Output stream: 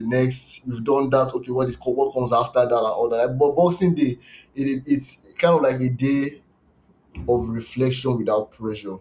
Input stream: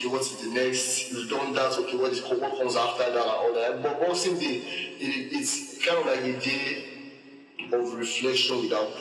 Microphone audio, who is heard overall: echo only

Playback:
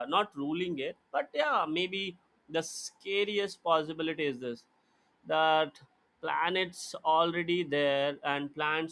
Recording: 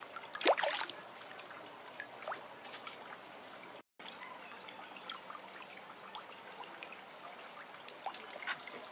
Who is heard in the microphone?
neither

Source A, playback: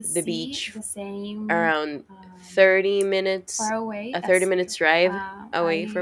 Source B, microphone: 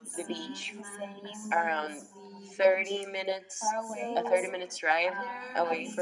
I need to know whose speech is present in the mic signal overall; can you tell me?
both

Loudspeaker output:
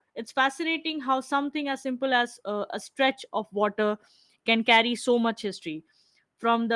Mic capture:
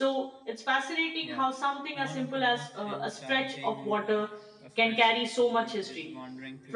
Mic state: both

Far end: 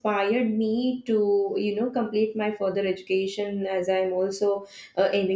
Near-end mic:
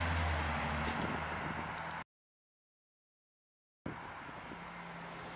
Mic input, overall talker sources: neither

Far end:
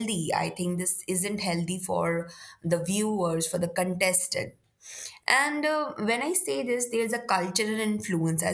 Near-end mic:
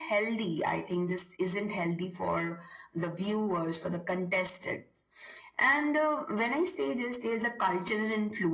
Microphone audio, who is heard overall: echo only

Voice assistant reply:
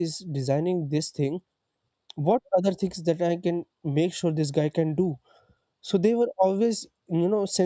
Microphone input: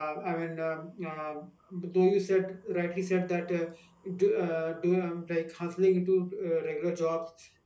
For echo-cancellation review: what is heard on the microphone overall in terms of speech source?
user only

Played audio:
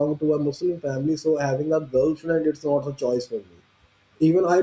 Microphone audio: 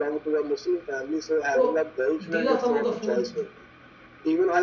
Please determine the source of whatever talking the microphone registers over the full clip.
both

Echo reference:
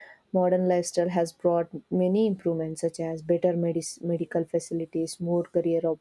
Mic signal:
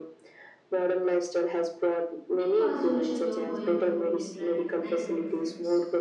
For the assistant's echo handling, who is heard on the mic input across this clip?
both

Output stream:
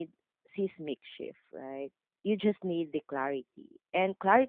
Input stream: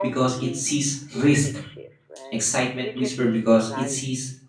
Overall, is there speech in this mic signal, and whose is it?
both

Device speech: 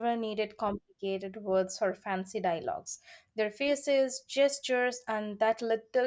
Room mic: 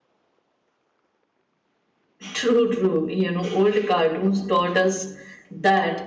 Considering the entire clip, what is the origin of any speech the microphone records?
user only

